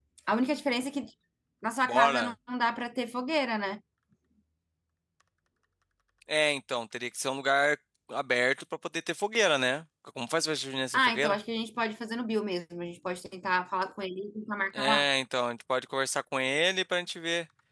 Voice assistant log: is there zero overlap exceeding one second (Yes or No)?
Yes